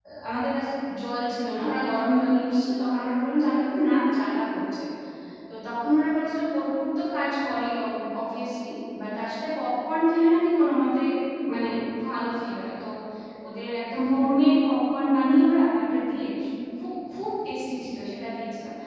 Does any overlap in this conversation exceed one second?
No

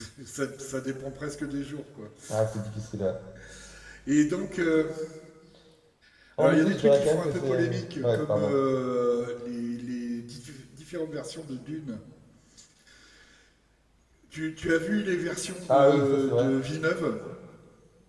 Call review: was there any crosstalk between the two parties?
Yes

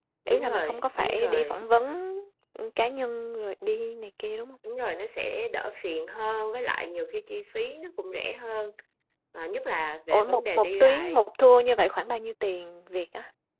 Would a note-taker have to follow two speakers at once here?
Yes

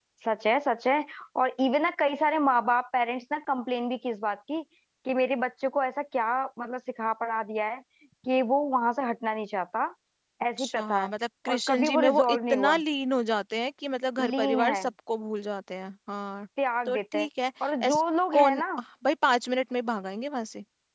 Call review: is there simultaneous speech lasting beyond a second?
Yes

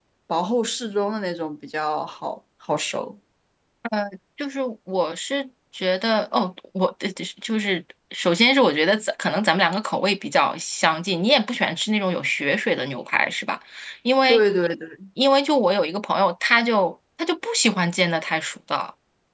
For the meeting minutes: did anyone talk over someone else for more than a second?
No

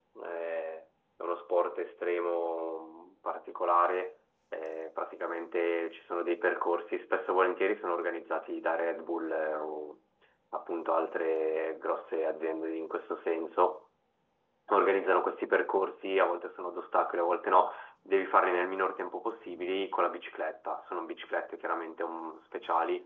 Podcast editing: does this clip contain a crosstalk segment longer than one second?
No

